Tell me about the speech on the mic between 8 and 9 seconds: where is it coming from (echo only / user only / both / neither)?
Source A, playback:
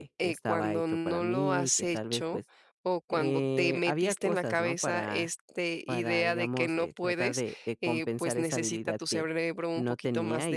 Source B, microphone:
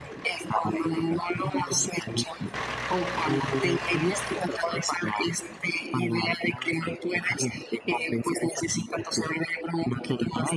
echo only